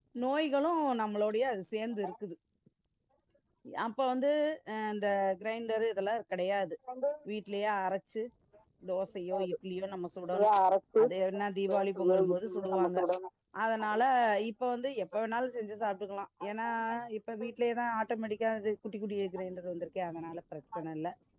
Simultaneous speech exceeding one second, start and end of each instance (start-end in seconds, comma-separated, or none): 11.7-13.0